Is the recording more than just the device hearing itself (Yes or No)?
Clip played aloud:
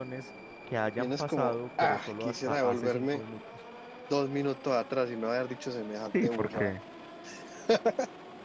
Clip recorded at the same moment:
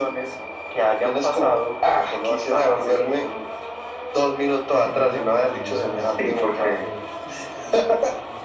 Yes